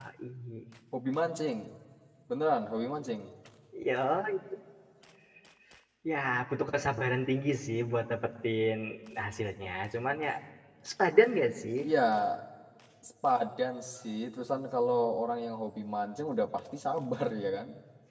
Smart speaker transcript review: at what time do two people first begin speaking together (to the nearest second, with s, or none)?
none